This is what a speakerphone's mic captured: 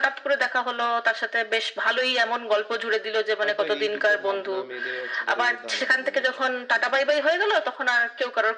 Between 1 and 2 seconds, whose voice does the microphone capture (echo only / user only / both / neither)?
echo only